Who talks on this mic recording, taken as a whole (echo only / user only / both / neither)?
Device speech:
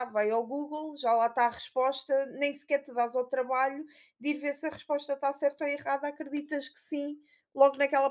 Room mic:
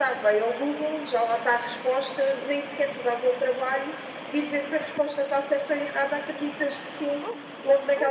echo only